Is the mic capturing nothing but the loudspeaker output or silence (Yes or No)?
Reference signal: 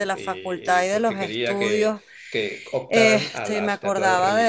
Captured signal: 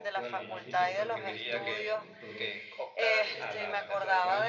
No